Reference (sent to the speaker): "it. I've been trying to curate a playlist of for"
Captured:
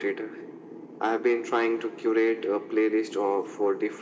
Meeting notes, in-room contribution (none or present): none